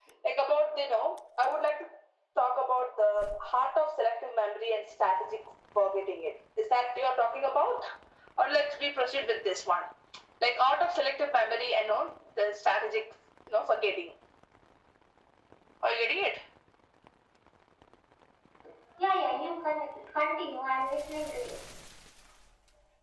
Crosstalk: none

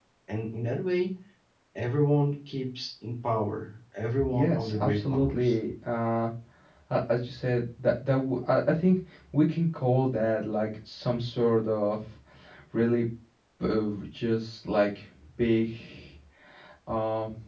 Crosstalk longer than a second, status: present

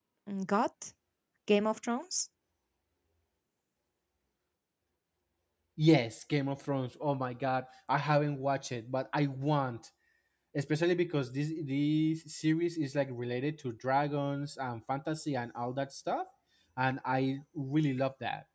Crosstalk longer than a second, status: none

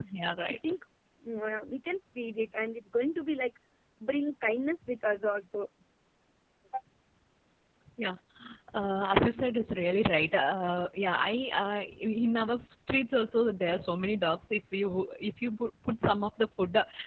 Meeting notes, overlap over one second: none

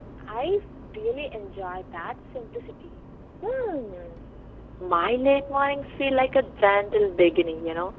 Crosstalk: none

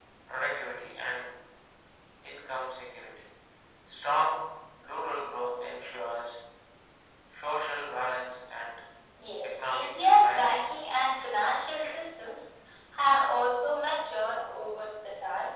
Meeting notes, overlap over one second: present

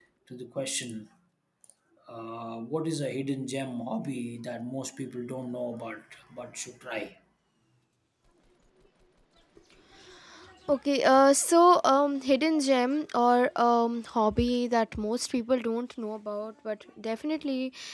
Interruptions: none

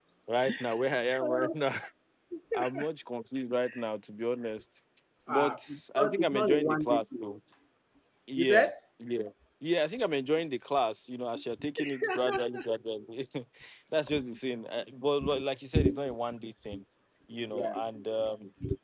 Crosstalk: present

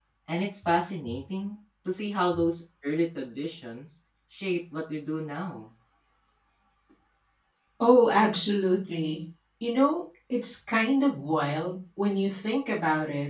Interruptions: none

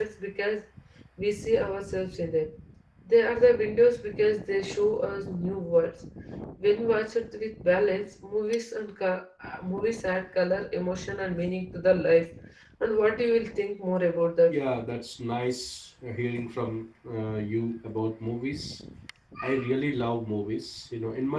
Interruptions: none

